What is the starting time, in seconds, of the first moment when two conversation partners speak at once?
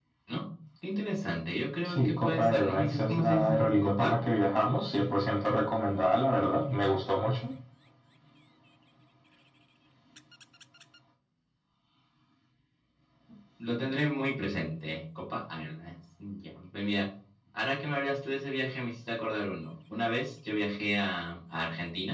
1.9 s

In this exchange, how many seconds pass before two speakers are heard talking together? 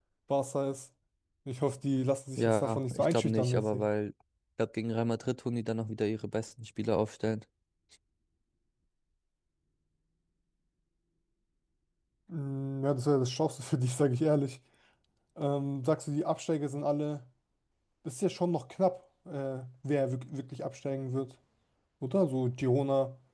2.4 s

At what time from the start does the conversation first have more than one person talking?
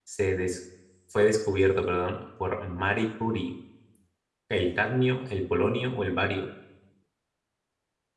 none

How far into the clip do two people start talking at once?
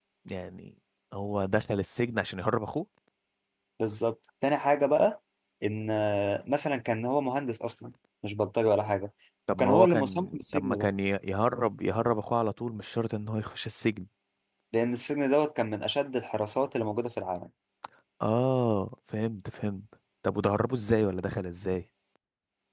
9.5 s

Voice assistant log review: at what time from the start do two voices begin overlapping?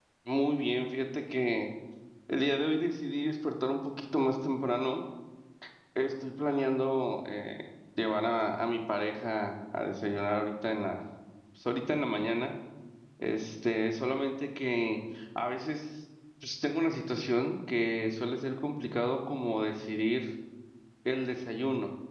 none

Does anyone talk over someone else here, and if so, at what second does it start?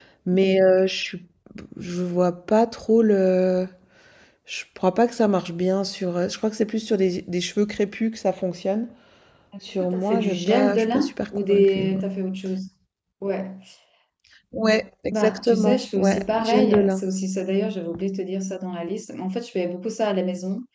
9.8 s

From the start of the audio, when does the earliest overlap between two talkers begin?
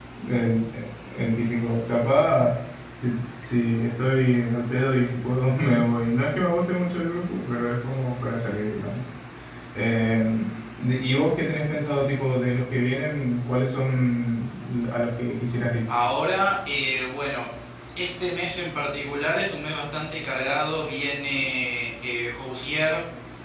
none

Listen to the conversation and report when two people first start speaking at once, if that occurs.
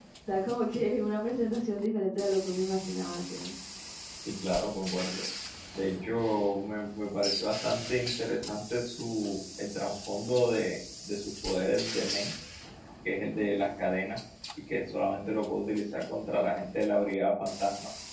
none

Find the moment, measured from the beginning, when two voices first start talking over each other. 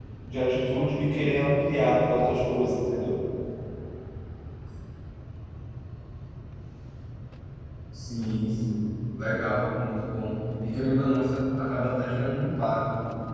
none

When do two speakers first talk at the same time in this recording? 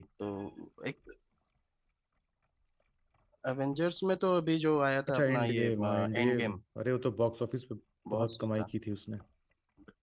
5.1 s

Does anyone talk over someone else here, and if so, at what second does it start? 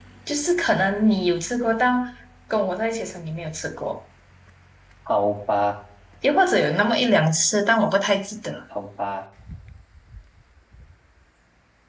none

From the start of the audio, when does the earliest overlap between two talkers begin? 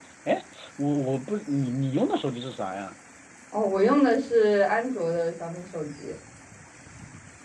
none

